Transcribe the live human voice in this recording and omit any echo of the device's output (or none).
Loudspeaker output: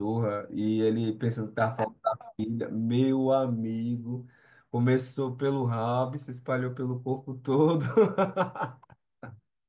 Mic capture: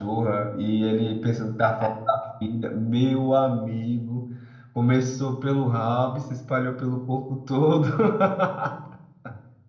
none